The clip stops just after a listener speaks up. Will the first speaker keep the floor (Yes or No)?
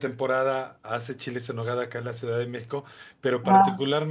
Yes